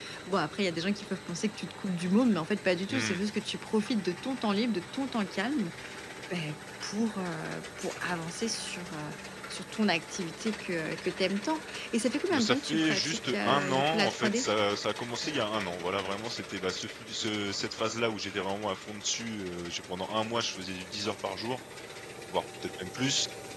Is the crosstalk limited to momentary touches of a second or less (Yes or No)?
No